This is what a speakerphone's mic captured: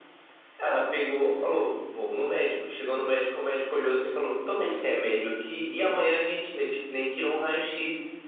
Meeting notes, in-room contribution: none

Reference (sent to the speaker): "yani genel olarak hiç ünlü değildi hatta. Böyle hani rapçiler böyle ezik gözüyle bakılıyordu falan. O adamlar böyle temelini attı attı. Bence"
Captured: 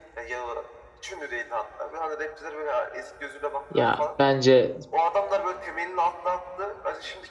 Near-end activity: present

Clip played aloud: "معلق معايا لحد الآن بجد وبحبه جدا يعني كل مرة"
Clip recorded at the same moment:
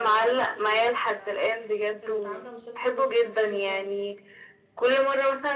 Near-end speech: present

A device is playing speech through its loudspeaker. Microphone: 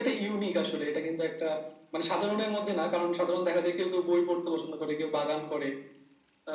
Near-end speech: none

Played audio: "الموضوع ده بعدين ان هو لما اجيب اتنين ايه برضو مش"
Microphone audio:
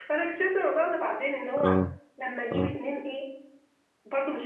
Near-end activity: present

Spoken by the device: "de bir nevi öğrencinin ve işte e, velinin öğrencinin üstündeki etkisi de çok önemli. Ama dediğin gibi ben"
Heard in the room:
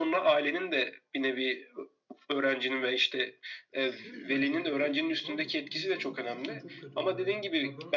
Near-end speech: present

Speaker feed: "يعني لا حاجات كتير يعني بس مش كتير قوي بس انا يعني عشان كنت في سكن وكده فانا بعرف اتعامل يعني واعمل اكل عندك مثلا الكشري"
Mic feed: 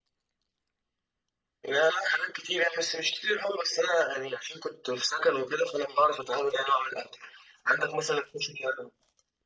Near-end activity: none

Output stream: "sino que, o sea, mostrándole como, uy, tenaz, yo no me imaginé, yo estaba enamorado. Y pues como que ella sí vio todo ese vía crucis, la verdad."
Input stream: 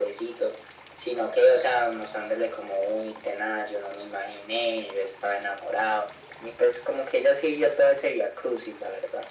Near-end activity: none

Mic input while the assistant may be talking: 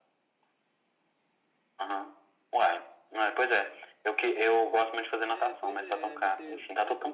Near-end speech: present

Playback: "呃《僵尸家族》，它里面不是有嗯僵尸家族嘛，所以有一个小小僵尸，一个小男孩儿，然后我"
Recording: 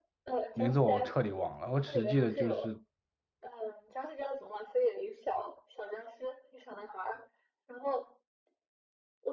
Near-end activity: present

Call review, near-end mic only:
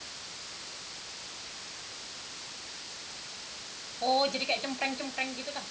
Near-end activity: present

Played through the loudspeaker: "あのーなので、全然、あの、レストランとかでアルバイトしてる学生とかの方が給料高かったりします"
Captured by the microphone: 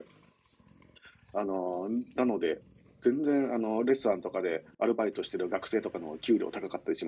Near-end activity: none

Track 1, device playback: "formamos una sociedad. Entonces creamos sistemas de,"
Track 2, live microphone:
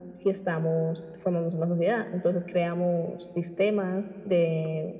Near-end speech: none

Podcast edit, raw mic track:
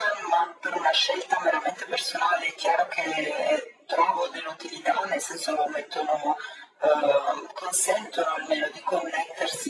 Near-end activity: none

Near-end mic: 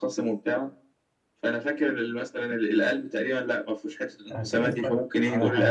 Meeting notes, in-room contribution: present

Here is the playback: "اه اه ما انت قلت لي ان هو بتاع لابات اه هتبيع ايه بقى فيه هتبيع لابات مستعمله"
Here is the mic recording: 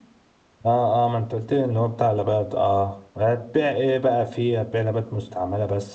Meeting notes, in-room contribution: none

